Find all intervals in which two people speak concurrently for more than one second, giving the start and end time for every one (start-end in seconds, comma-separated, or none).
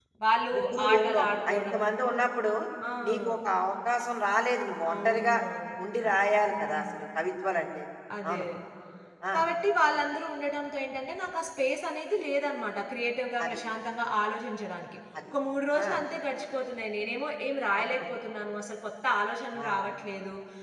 0.5-1.8